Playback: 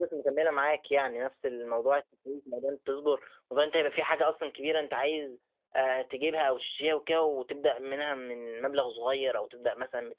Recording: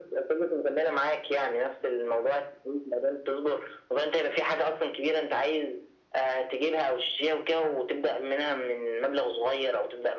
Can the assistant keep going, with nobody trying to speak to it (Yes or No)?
Yes